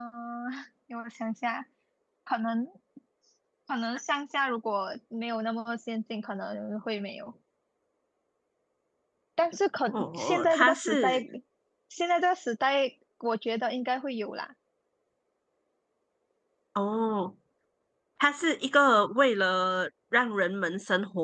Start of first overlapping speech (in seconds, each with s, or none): 9.9 s